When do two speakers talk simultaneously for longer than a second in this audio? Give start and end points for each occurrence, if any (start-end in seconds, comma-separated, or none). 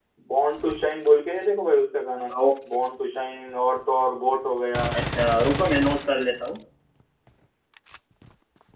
none